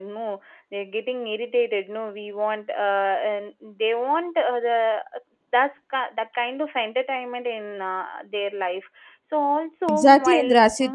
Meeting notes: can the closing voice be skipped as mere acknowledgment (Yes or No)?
No